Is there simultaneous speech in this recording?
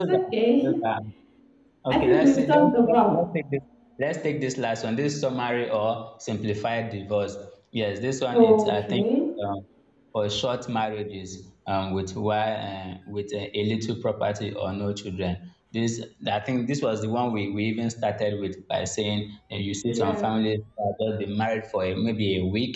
Yes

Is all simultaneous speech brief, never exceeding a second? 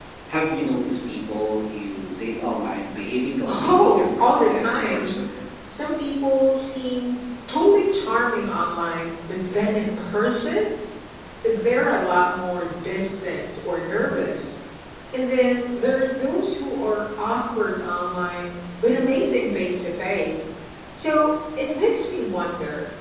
No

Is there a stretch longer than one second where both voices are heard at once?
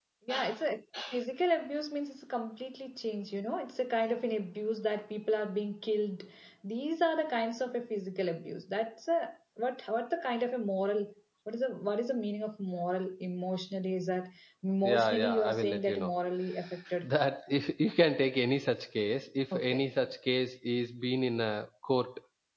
Yes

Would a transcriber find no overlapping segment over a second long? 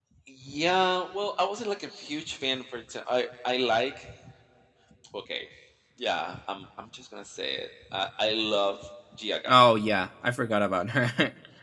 Yes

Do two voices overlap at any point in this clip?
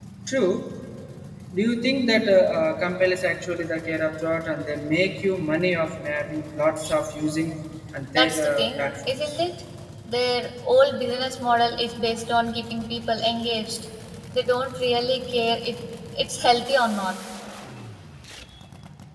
Yes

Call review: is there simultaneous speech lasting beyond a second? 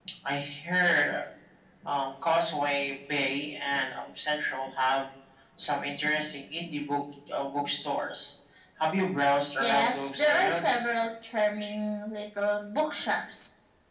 Yes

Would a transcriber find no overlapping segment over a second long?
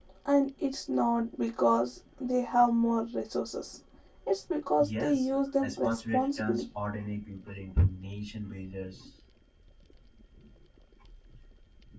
No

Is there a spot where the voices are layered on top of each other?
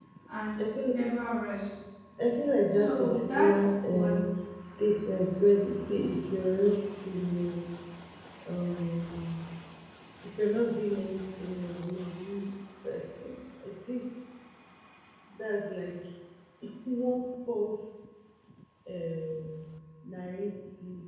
Yes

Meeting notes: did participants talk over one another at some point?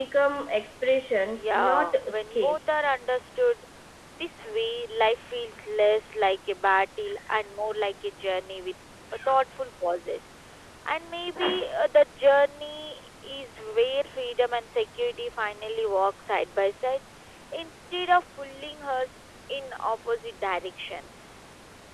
Yes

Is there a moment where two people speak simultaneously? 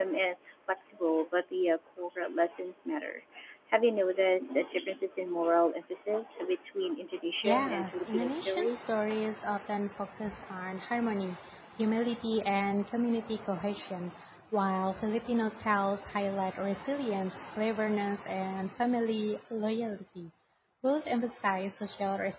Yes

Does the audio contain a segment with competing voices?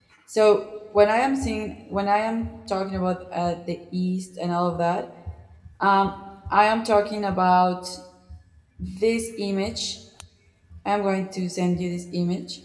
No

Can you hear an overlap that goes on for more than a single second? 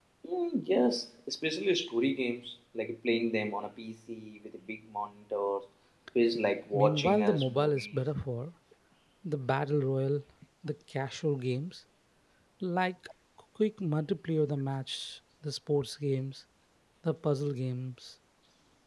Yes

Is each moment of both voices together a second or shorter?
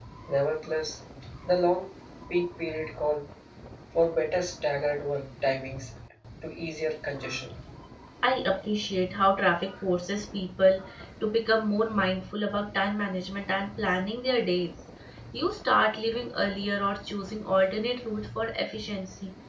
Yes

